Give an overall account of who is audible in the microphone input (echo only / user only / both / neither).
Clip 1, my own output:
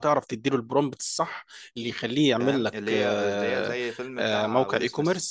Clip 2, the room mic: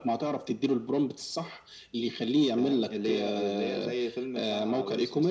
echo only